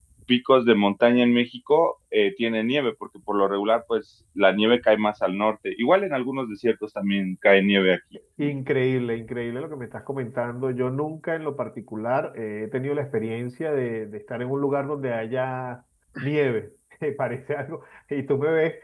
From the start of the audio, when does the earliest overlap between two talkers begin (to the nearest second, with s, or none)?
none